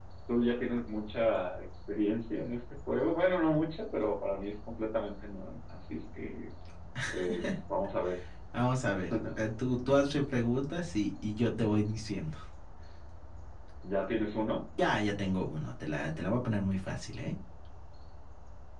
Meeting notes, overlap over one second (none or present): none